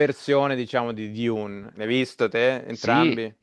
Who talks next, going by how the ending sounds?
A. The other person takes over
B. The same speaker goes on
A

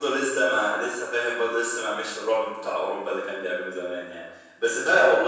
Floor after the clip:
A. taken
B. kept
B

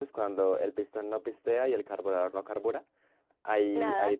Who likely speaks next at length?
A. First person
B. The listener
A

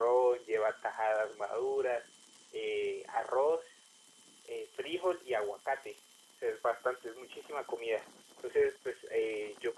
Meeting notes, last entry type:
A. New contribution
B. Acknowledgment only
B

